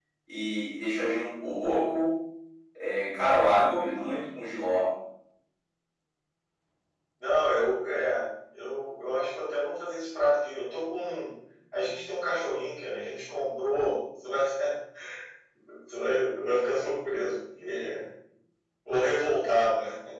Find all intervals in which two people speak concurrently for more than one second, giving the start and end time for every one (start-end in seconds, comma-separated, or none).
none